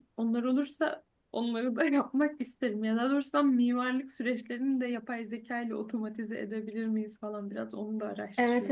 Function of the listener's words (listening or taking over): taking over